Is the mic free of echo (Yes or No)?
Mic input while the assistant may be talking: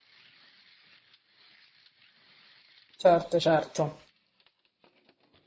Yes